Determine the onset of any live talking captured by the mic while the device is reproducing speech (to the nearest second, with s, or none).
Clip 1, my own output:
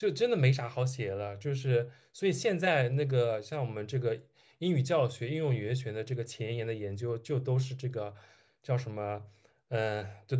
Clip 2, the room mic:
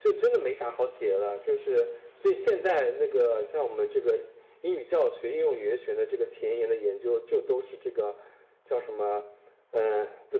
none